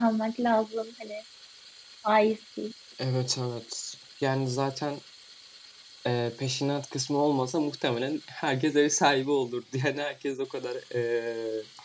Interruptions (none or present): none